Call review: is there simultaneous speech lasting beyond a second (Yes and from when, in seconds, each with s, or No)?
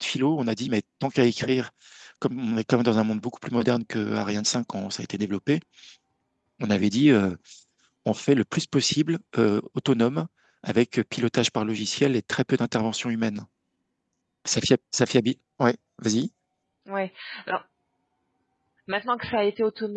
No